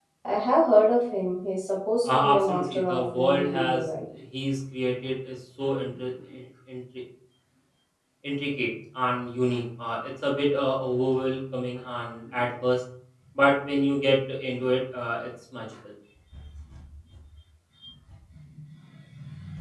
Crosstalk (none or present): present